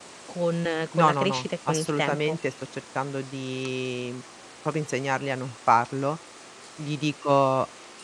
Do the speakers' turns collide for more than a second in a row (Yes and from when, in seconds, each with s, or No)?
Yes, from 1.0 s